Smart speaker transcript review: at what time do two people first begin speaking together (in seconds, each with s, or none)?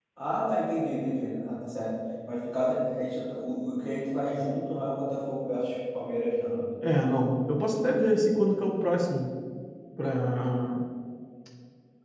none